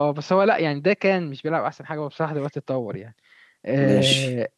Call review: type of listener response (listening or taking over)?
listening